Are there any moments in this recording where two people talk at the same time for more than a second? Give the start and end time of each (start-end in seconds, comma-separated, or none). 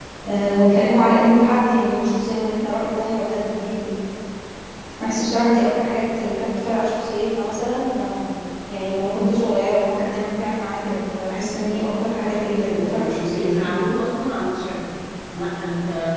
12.2-13.7